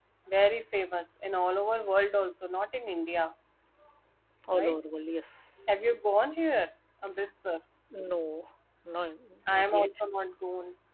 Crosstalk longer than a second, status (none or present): none